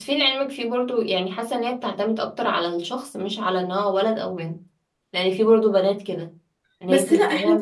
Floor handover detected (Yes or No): Yes